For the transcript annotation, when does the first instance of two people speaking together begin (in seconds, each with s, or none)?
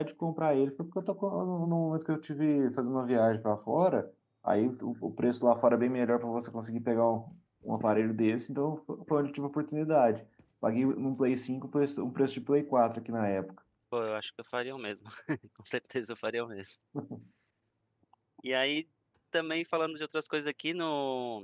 none